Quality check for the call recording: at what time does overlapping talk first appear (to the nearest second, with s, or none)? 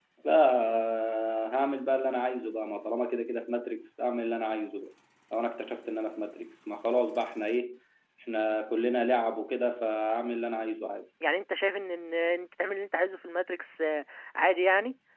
none